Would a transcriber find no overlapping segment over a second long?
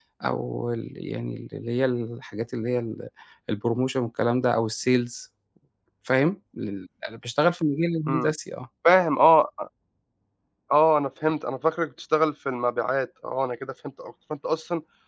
Yes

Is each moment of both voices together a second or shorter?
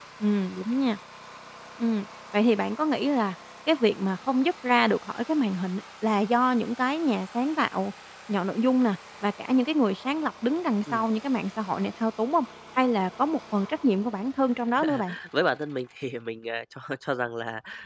Yes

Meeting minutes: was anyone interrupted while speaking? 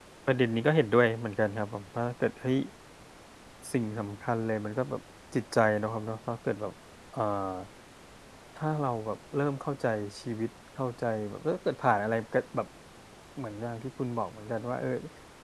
No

